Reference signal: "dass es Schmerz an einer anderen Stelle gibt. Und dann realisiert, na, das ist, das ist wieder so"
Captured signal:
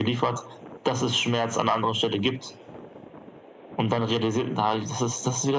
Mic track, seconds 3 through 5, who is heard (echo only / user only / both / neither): echo only